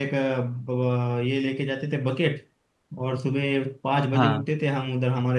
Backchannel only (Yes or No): Yes